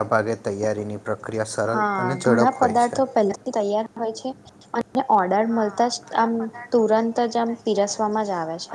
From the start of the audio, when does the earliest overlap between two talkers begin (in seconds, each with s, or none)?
1.8 s